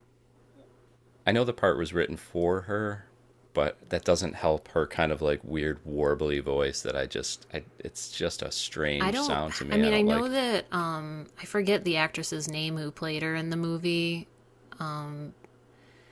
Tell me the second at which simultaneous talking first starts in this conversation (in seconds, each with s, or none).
9.0 s